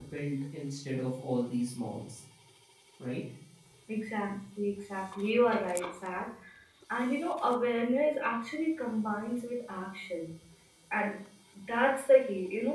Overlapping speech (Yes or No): No